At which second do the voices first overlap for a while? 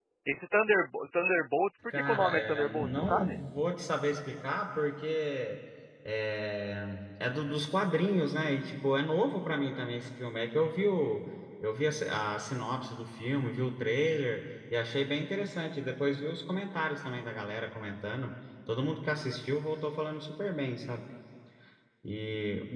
1.9 s

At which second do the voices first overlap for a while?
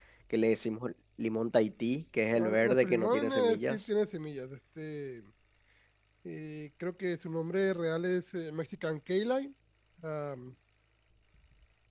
2.4 s

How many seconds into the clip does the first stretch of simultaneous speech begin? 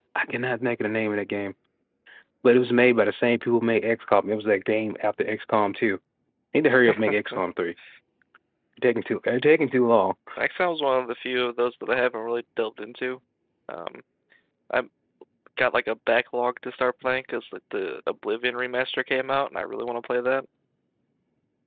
none

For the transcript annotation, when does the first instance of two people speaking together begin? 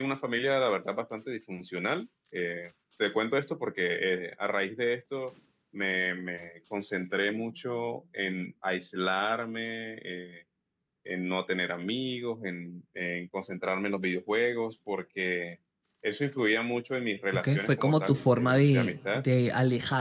17.3 s

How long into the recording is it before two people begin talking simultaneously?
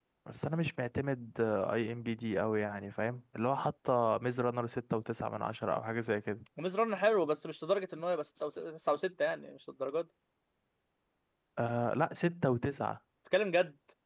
none

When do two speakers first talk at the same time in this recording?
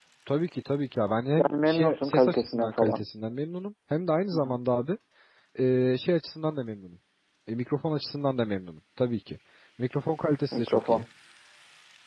1.4 s

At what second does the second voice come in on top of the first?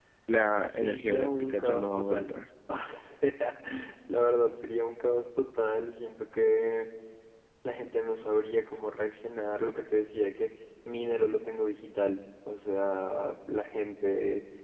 0.8 s

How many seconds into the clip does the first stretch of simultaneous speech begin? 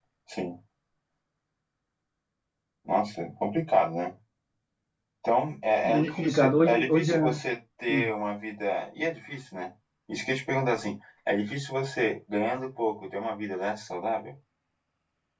5.8 s

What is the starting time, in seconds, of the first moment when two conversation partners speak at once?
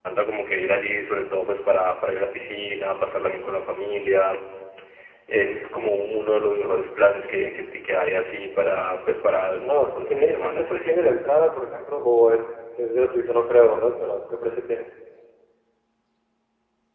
9.6 s

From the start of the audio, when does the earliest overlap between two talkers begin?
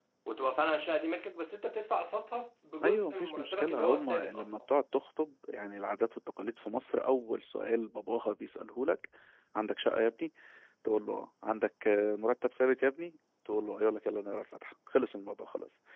2.8 s

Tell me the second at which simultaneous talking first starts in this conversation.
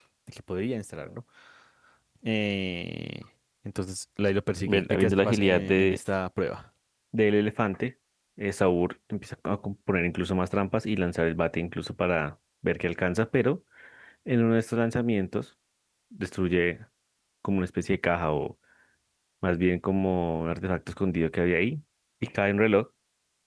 4.6 s

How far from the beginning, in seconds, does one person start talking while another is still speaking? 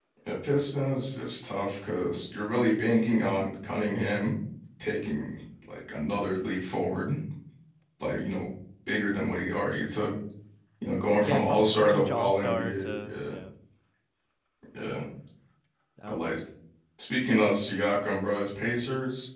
11.2 s

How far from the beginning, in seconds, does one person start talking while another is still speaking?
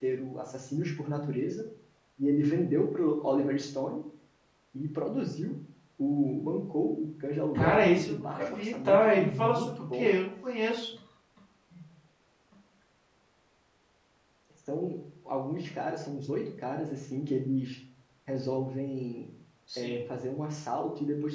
7.5 s

